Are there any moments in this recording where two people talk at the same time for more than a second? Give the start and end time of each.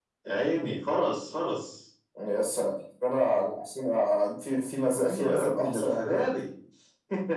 5.0-6.3

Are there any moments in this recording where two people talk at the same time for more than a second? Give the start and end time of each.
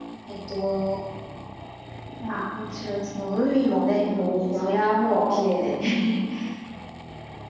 4.5-5.8

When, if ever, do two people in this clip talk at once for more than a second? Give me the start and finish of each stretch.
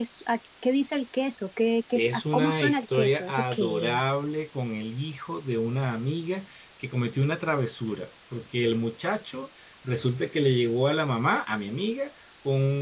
1.9-4.1

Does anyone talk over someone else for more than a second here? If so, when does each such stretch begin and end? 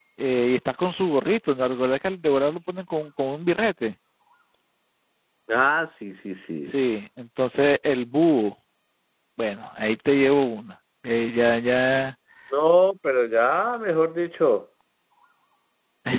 none

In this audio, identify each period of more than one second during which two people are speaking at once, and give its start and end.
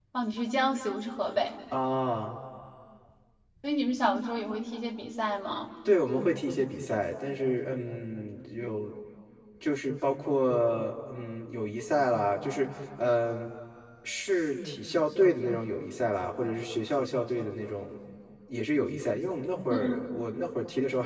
none

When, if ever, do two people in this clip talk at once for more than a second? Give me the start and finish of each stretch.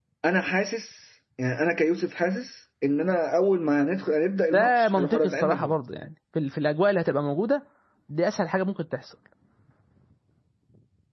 4.5-5.7

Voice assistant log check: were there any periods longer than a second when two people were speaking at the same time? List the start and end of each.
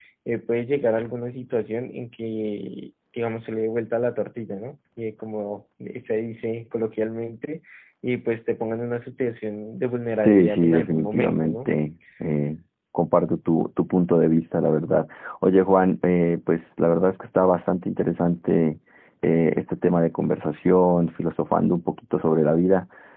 10.2-11.7

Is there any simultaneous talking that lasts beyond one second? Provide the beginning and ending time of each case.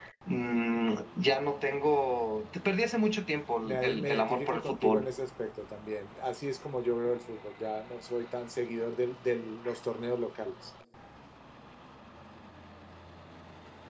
3.6-5.0

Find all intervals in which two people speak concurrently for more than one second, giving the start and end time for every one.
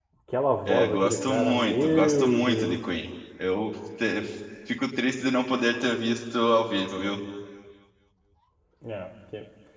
0.7-2.8

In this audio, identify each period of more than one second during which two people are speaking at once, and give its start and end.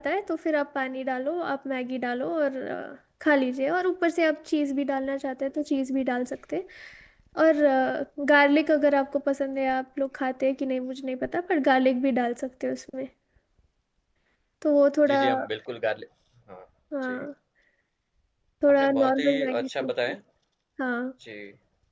18.8-20.1

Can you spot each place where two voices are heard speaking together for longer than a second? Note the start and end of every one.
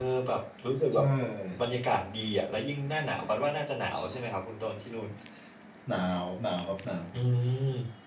none

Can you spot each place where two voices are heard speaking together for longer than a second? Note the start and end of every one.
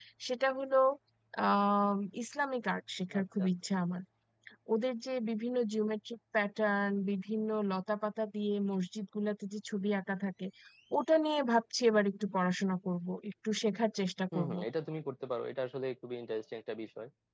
none

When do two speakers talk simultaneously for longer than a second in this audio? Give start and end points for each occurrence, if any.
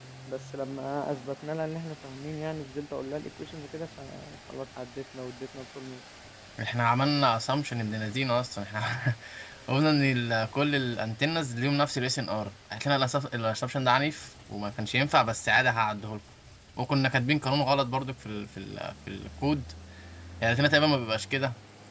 none

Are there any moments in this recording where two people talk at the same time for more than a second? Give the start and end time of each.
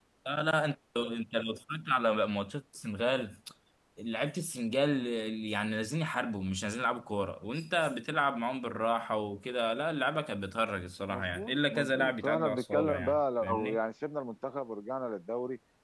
11.1-13.8

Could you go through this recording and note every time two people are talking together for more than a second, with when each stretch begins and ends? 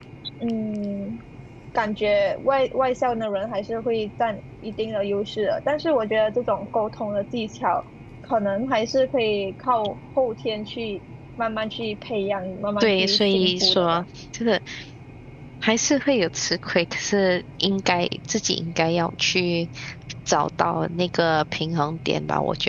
12.8-14.0

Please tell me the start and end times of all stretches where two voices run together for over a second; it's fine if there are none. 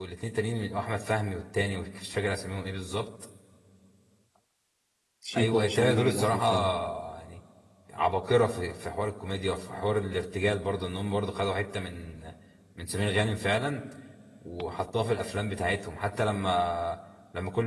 5.4-6.7

